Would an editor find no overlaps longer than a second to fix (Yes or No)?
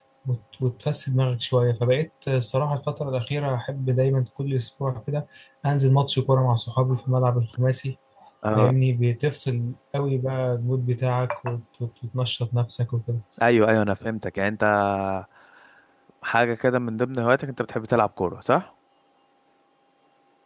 Yes